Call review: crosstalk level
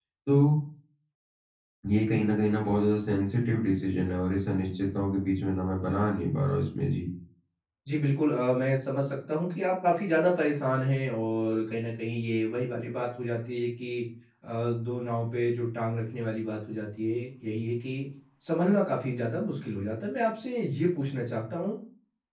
none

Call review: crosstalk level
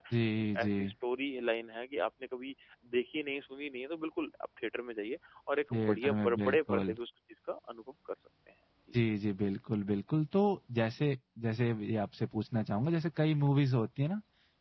present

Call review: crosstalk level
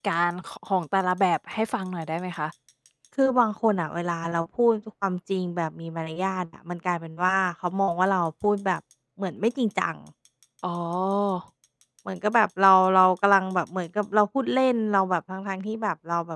none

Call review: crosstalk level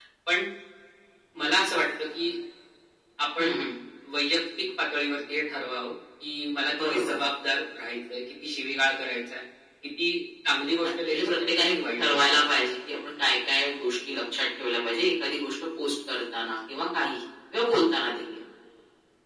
present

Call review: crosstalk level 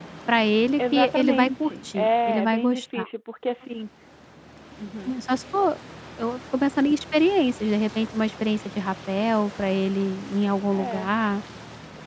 present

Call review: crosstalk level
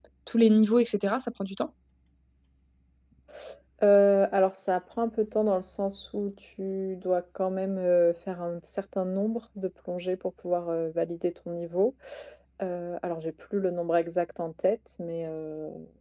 none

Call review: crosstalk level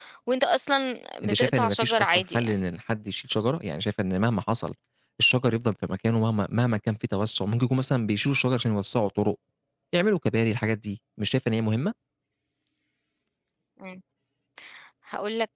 present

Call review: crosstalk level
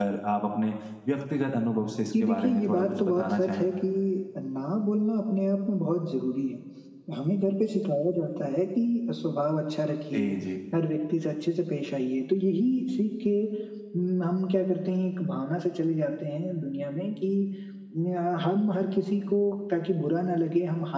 present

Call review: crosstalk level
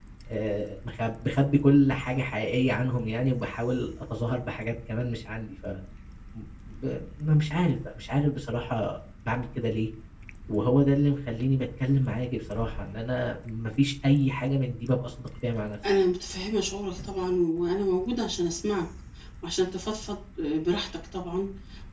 none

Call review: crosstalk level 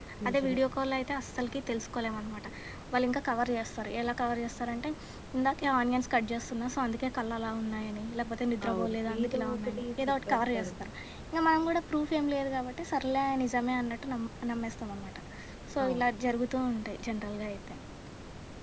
present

